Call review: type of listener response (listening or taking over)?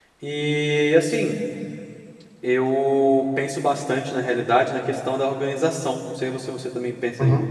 taking over